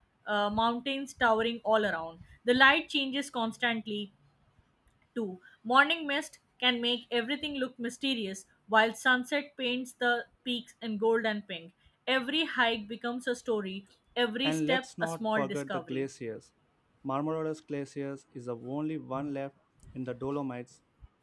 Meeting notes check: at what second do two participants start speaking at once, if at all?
14 s

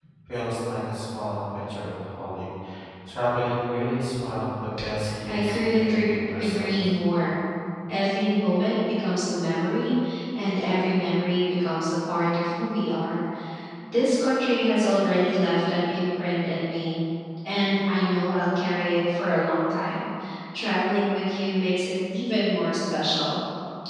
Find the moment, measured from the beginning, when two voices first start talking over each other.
5 s

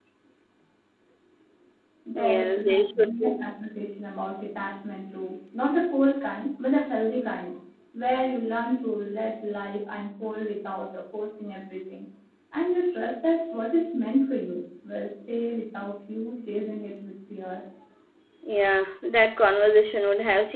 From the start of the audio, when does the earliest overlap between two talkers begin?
2 s

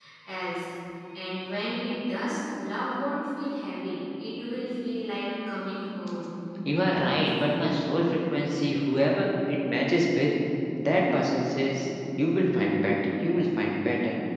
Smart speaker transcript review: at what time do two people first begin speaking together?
none

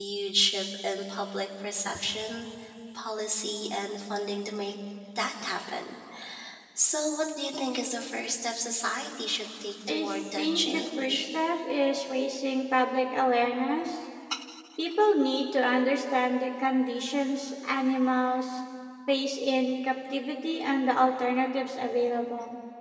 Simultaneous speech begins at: 10 s

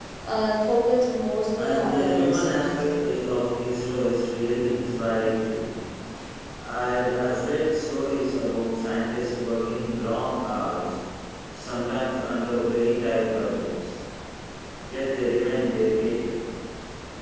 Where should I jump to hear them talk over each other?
1 s

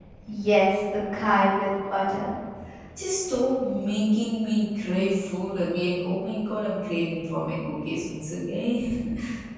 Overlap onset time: none

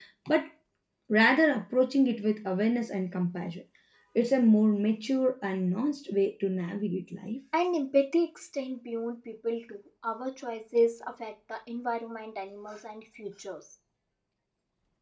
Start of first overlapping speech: none

